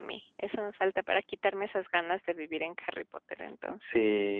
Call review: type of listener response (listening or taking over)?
taking over